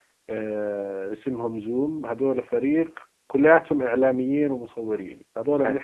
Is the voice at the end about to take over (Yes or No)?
No